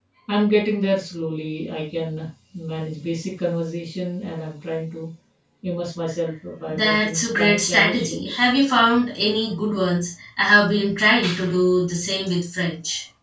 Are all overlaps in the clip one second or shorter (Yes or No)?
No